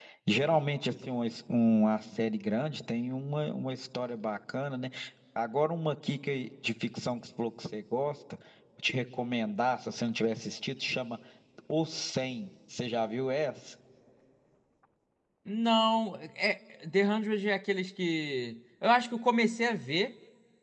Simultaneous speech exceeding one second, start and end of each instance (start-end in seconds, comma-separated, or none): none